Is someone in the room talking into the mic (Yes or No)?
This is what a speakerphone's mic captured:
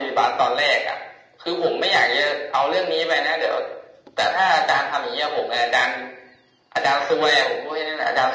No